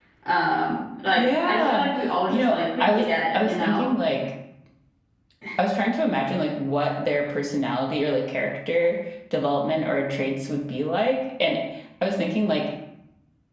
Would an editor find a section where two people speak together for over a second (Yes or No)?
Yes